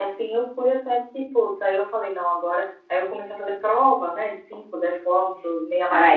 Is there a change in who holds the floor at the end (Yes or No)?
Yes